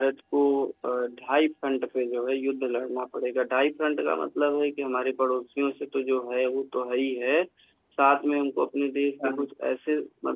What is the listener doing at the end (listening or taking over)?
listening